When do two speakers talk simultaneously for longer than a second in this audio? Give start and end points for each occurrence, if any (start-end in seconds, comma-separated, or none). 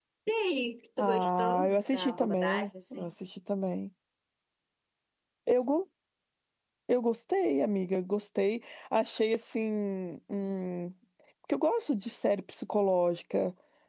1.0-3.1